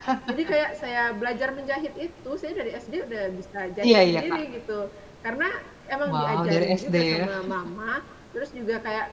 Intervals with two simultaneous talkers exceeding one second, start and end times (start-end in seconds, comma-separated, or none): 6.0-7.3